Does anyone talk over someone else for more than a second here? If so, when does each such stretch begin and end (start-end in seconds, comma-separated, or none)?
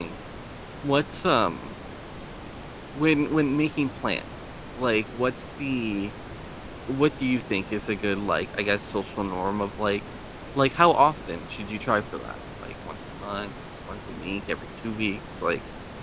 none